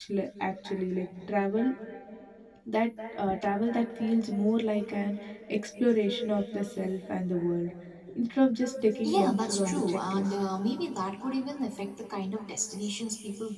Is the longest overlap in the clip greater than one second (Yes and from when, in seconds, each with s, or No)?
Yes, from 9.0 s